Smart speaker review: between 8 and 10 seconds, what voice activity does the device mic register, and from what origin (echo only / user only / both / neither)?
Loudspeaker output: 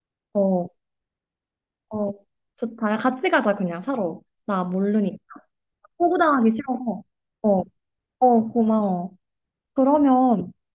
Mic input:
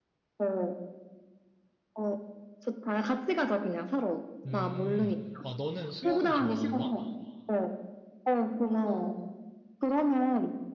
echo only